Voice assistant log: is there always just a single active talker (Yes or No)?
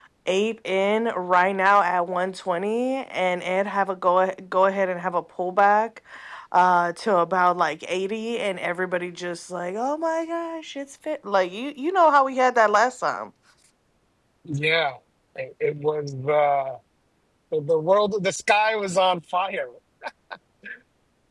Yes